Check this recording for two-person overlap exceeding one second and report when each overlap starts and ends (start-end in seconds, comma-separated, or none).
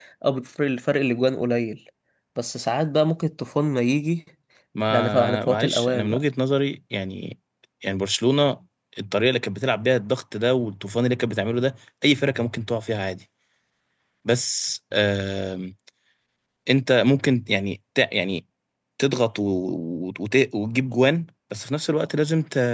4.9-6.2